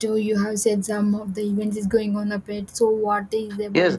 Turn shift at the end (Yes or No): Yes